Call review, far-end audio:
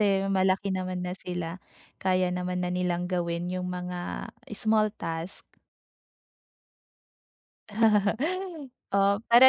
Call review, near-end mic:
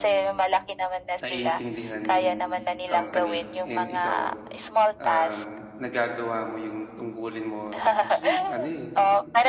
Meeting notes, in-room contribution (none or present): present